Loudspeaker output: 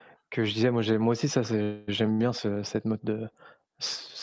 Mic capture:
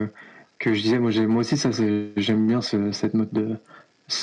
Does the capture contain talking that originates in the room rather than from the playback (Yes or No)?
No